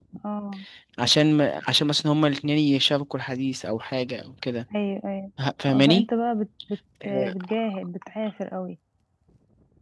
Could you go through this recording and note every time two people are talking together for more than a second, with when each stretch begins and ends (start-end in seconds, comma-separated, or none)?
none